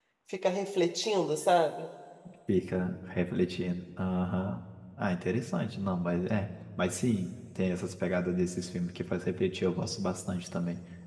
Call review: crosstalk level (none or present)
none